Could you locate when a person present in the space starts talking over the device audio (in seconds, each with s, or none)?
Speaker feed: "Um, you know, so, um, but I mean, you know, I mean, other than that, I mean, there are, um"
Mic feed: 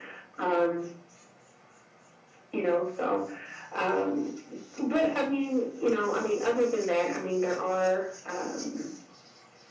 none